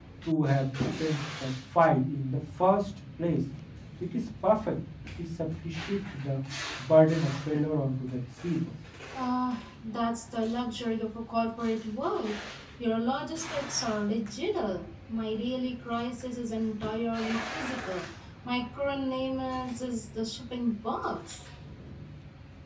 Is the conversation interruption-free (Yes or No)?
Yes